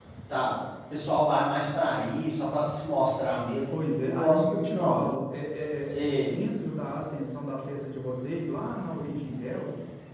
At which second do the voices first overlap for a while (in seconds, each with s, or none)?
3.7 s